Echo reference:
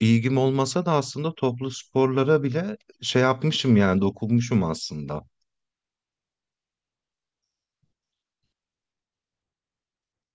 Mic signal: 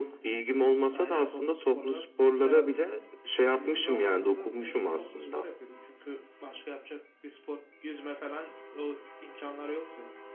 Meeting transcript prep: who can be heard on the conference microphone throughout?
both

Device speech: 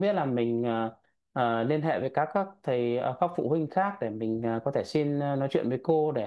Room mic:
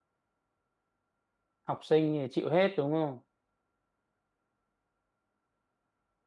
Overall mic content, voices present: user only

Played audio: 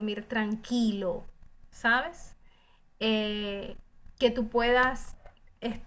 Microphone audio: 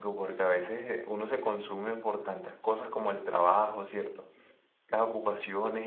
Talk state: user only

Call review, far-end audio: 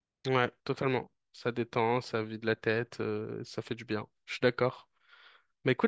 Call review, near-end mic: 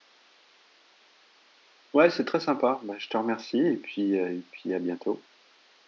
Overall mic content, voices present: user only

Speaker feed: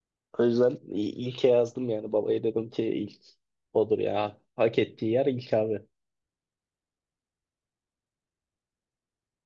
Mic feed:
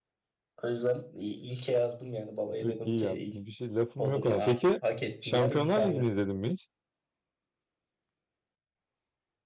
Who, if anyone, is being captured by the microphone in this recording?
both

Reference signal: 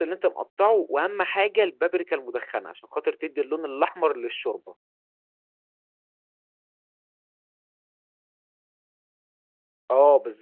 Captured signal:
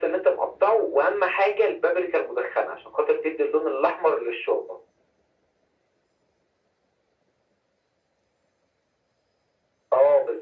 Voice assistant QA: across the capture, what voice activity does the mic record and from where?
echo only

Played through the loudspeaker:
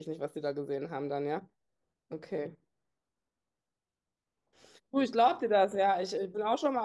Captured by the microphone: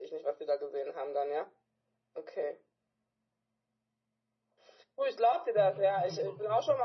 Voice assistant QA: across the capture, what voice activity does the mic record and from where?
both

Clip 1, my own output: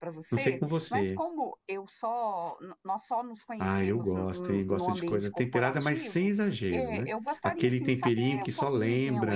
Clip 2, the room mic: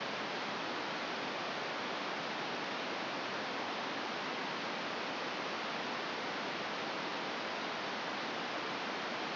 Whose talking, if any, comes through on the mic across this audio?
neither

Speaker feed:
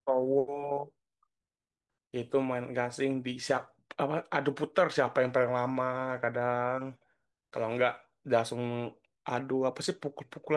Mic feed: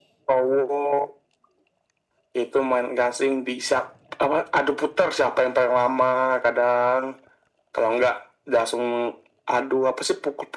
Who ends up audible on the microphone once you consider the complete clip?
echo only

